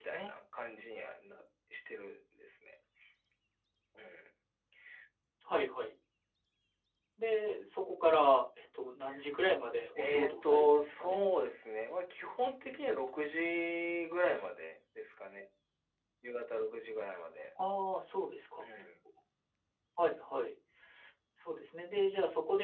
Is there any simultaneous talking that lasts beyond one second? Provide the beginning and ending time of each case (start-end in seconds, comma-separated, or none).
10.0-11.2